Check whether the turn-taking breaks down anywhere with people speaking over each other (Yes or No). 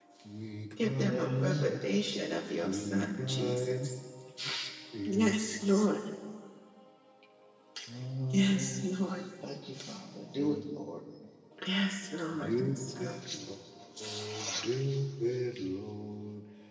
Yes